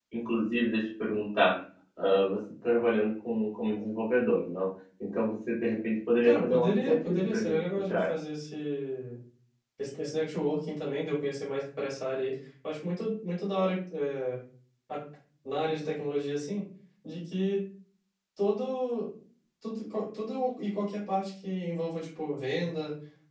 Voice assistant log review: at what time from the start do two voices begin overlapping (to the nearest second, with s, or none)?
6 s